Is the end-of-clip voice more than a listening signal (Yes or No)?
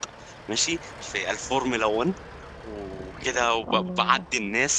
No